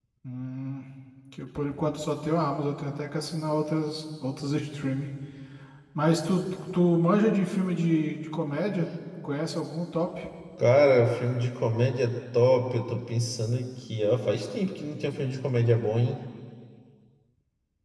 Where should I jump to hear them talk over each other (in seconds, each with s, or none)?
none